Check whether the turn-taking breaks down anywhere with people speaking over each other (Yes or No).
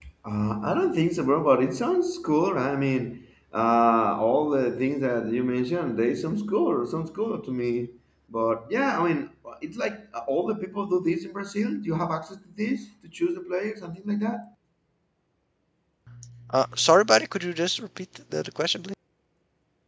No